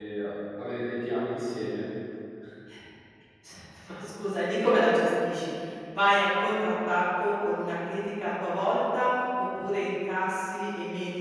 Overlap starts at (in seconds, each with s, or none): none